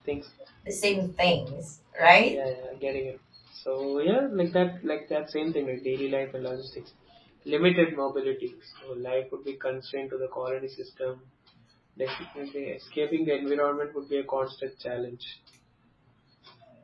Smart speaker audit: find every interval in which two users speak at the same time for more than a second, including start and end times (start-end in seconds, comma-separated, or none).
none